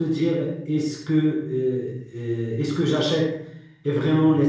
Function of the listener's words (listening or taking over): listening